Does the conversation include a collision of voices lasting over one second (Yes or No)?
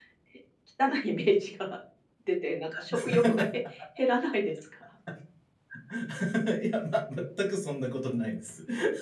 No